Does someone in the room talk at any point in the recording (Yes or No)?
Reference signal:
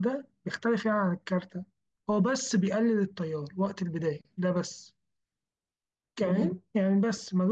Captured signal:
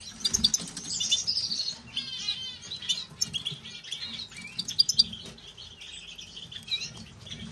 No